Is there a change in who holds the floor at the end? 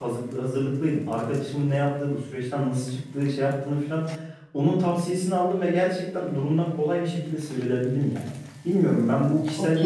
No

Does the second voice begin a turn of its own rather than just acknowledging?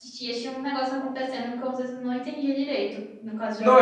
Yes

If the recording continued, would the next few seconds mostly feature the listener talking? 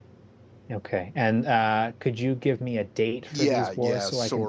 Yes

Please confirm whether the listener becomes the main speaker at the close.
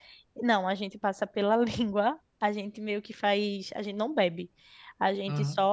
No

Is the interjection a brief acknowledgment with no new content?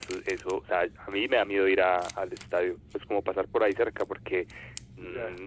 Yes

